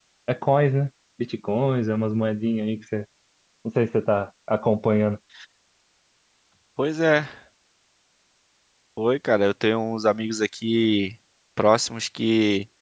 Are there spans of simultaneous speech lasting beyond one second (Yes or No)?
No